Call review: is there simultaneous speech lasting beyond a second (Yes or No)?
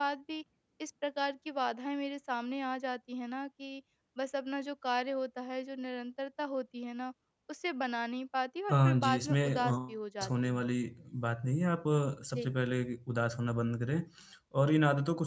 Yes